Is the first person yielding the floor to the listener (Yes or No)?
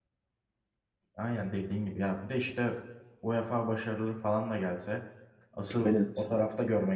No